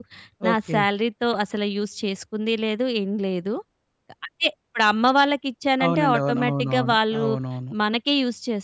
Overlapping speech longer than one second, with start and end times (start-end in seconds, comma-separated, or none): 5.8-7.2